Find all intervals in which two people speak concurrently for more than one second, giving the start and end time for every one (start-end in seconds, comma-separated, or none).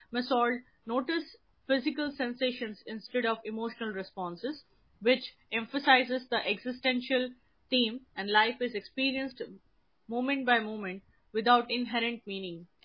none